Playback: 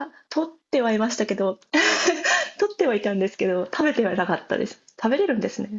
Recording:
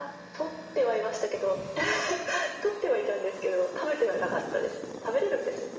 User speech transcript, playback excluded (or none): none